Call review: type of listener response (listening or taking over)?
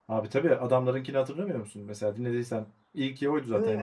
taking over